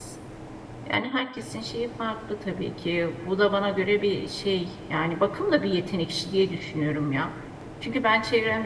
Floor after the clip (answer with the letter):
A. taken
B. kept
B